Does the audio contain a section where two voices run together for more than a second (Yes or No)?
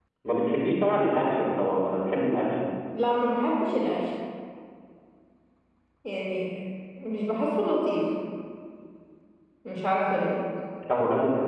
No